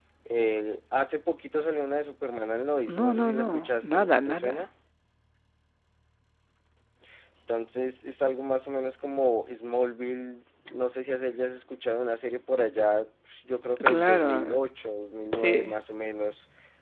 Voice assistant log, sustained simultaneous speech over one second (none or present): present